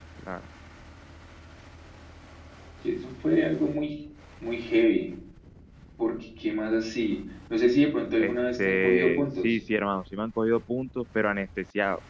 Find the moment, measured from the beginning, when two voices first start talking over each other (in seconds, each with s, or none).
8.2 s